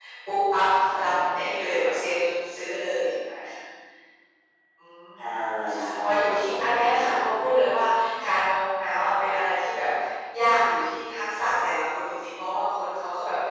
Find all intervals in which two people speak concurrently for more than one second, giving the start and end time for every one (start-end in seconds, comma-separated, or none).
5.7-7.1